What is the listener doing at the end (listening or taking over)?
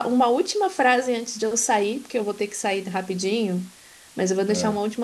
listening